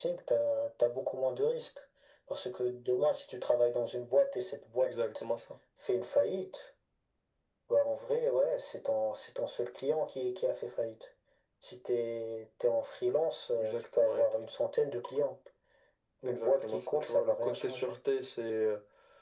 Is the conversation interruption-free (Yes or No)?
No